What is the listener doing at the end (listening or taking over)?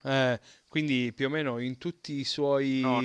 taking over